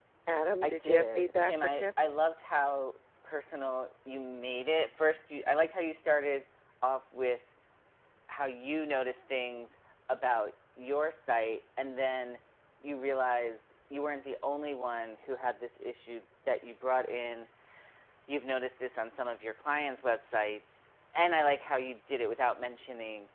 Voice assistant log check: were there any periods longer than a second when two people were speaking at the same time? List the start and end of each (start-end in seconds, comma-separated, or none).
0.6-1.8